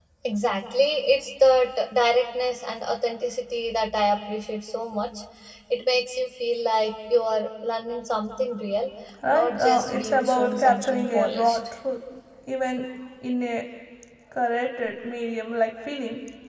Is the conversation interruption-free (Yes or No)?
No